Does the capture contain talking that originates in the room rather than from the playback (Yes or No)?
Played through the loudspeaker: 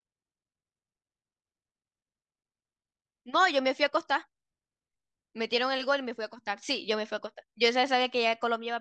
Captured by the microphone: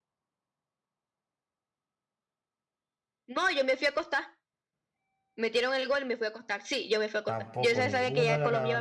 Yes